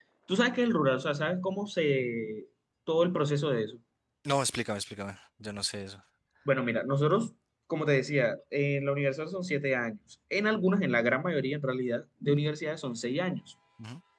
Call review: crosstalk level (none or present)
none